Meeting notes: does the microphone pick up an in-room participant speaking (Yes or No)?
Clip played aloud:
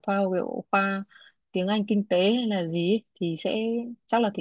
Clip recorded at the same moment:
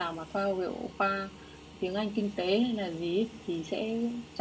No